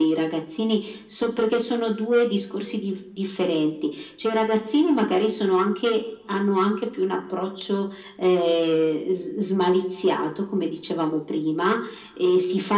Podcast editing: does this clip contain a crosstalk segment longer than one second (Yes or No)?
No